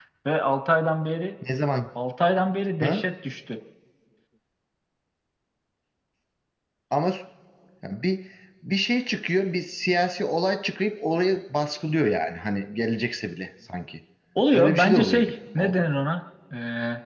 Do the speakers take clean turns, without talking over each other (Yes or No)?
No